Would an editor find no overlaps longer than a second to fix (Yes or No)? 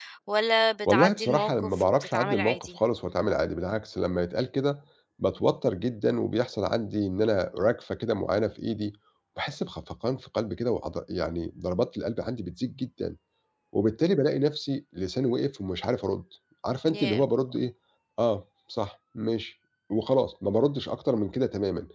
No